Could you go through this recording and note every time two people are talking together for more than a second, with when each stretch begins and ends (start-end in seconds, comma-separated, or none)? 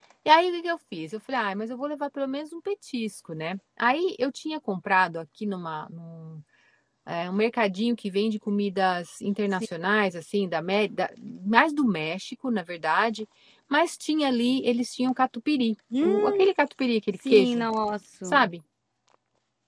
none